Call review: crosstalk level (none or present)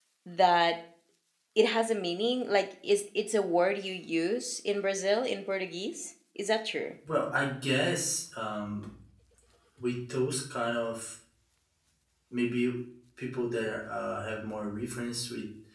none